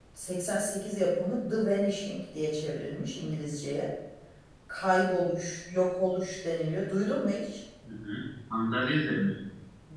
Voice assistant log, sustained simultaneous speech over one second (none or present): none